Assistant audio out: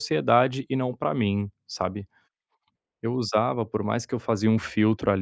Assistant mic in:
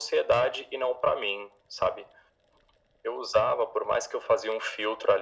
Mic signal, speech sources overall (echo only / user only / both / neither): echo only